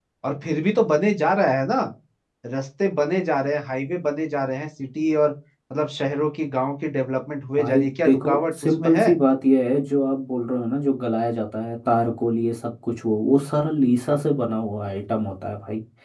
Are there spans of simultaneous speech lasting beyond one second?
Yes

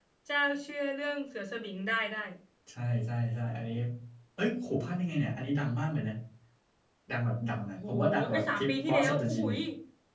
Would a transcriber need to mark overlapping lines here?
Yes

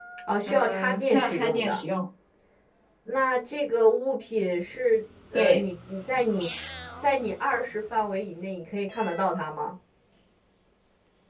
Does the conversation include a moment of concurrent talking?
Yes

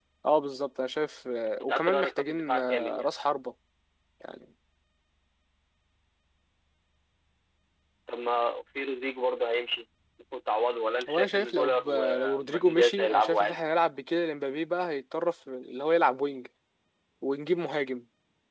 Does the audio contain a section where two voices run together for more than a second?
Yes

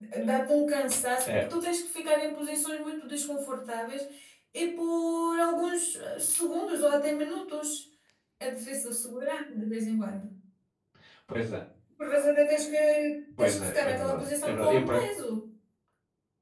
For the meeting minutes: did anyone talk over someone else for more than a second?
Yes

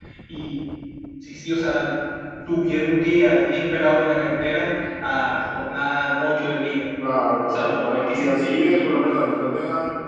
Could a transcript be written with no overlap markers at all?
No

